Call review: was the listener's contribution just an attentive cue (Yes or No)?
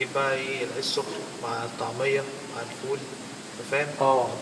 Yes